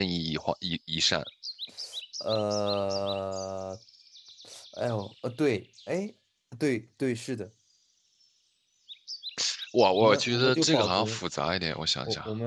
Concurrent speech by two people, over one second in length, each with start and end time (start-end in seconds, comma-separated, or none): 10.0-11.2